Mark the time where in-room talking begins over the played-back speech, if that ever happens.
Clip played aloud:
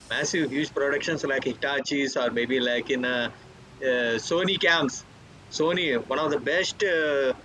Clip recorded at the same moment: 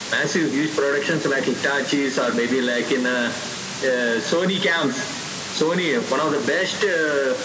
none

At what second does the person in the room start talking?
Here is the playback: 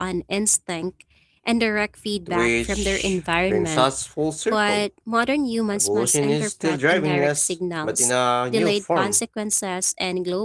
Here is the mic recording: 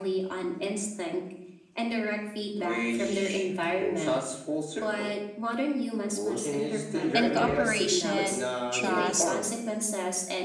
7.1 s

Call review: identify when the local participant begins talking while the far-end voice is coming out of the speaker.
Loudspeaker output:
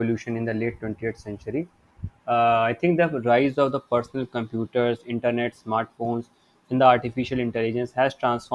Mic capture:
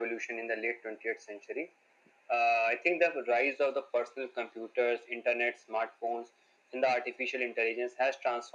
none

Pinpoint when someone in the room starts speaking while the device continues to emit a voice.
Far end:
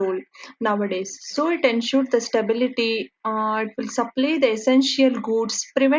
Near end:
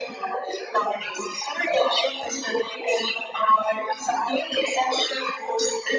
none

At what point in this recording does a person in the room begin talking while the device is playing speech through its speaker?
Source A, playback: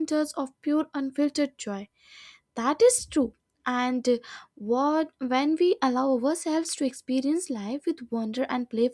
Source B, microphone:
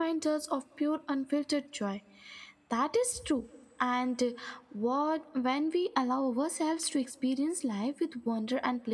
none

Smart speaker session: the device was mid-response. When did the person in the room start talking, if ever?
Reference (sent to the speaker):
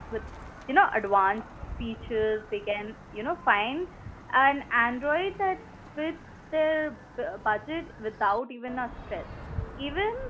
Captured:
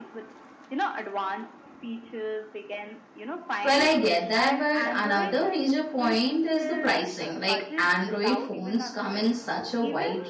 3.6 s

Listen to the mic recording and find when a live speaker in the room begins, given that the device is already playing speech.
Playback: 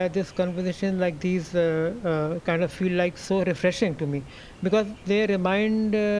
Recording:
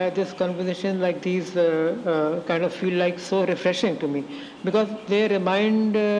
none

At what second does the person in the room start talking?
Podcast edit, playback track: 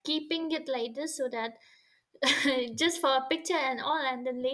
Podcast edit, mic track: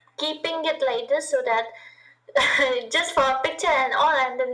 none

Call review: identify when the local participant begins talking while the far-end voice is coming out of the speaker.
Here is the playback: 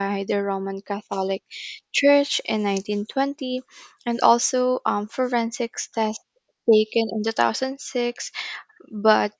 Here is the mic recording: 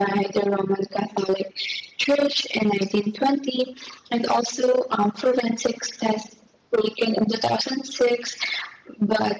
none

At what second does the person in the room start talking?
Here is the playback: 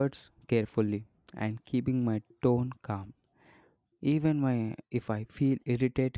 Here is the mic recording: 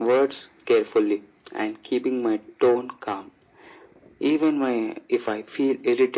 none

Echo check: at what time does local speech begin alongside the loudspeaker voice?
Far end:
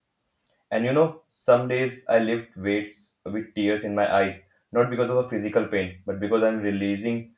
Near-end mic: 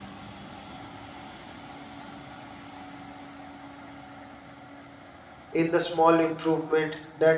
5.5 s

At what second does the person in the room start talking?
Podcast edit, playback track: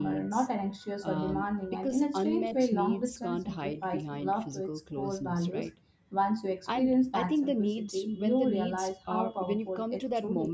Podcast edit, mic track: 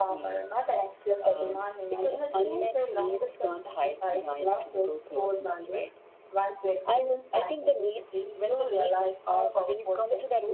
none

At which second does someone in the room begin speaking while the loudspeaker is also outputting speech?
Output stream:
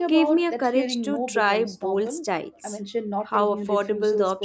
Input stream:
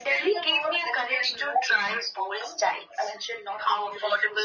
none

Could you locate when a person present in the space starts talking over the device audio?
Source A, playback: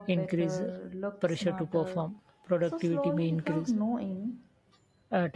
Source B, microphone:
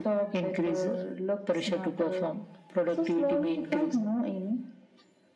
none

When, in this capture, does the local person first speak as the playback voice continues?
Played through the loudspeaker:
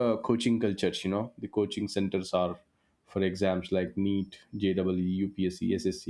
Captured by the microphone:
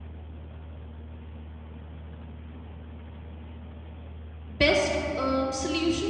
4.5 s

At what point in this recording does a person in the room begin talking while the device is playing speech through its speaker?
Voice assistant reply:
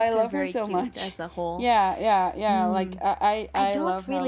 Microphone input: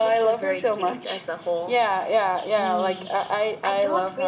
none

